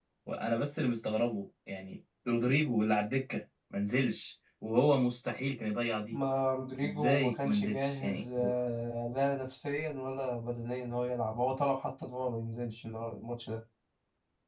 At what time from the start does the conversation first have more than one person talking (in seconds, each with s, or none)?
6.8 s